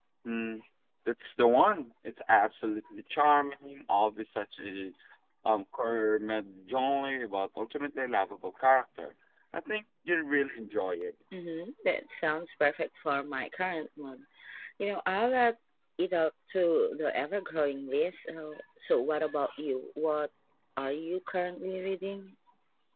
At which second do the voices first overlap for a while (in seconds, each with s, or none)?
none